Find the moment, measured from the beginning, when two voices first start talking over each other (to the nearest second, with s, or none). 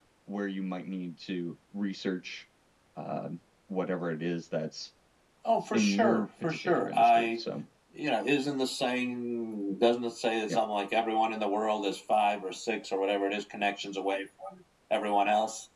6 s